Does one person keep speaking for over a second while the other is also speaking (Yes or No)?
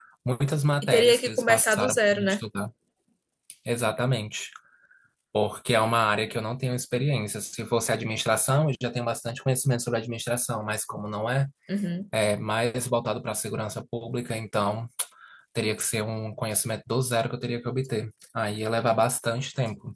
Yes